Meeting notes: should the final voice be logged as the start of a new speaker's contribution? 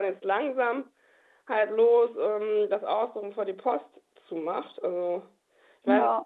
No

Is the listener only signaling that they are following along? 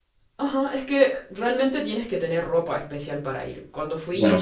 Yes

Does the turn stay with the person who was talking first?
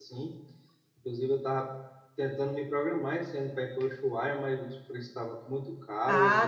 No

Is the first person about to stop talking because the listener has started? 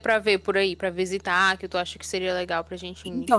Yes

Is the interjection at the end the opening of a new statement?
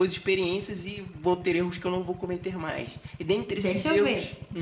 Yes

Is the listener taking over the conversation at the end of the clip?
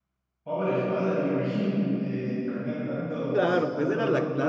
Yes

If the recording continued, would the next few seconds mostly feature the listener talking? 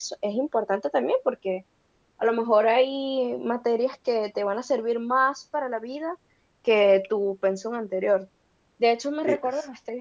No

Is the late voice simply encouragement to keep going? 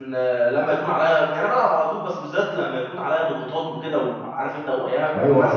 No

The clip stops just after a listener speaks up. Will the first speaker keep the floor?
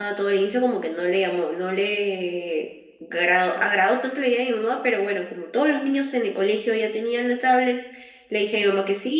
Yes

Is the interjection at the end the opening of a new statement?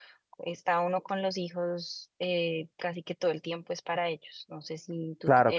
No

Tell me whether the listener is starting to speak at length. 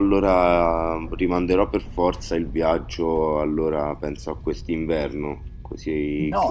Yes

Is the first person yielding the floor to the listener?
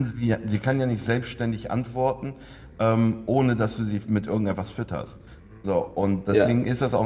No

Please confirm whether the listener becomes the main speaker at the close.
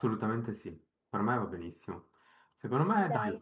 No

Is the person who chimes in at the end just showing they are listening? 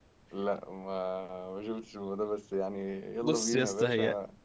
No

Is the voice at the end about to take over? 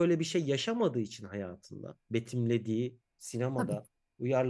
No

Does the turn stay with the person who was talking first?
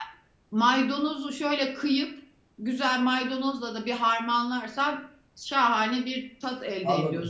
No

